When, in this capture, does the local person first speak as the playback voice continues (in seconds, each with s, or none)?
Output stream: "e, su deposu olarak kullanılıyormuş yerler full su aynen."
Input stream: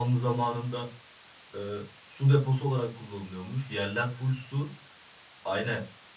none